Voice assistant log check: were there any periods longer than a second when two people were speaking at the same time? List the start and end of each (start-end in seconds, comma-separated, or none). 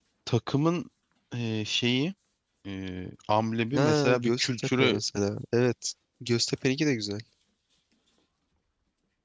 3.8-5.0